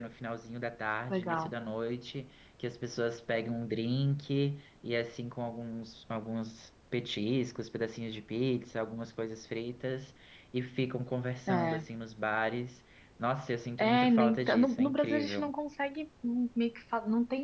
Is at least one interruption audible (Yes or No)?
Yes